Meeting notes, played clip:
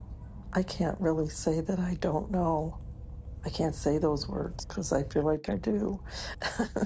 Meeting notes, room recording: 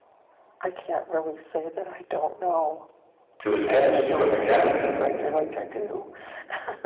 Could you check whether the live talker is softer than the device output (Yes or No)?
No